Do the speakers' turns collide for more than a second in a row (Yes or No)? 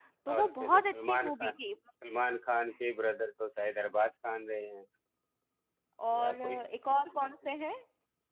Yes